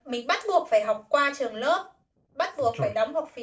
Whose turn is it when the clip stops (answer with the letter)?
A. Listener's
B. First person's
B